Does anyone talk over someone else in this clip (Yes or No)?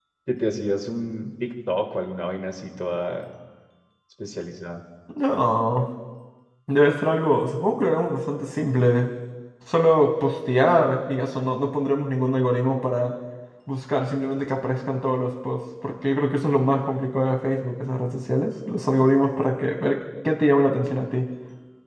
No